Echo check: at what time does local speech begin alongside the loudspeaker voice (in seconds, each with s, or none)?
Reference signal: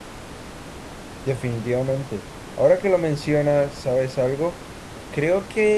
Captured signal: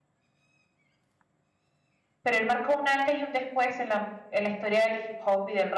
2.2 s